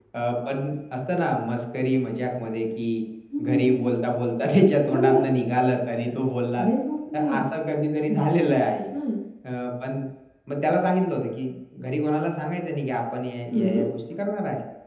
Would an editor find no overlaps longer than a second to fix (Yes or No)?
Yes